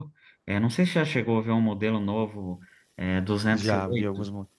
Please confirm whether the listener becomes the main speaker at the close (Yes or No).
Yes